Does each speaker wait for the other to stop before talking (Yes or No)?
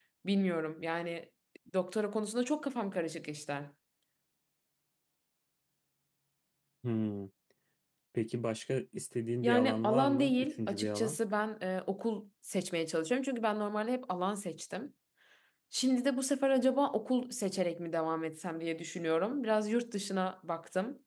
No